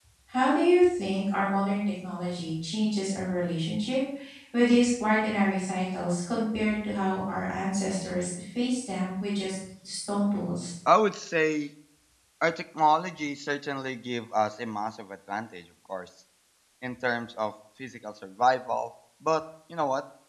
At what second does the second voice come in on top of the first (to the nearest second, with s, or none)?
none